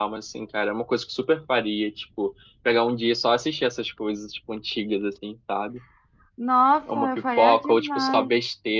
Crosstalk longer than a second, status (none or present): present